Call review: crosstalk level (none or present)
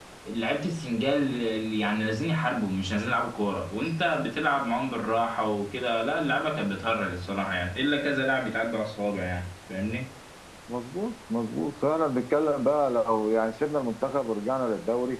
none